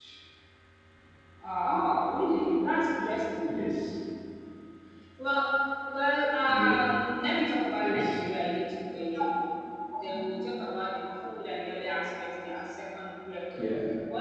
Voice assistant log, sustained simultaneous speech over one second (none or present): none